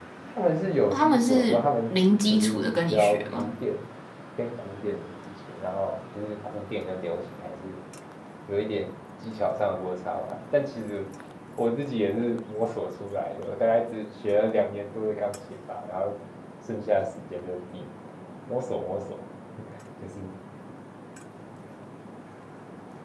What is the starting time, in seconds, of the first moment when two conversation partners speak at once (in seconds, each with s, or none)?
0.9 s